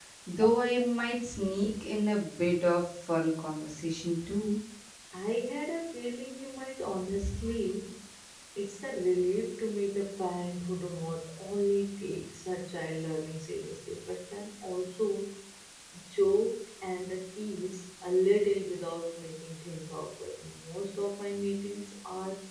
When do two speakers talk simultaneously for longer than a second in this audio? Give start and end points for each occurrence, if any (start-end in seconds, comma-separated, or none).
none